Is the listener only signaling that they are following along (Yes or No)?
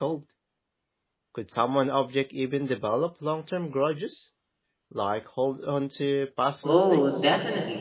No